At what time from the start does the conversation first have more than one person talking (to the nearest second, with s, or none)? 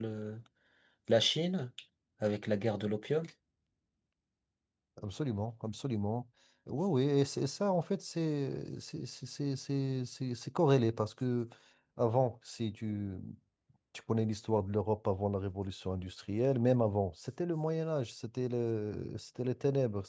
none